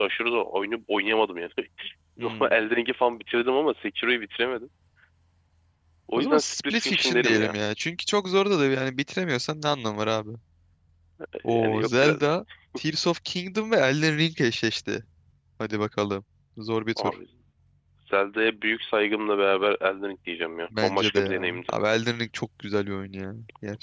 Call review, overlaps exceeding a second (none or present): present